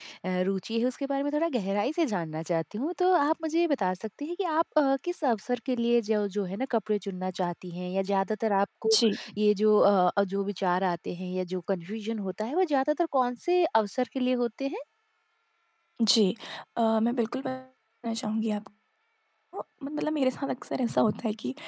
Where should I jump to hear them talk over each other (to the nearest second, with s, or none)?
none